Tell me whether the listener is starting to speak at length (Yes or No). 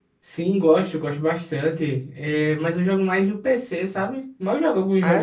No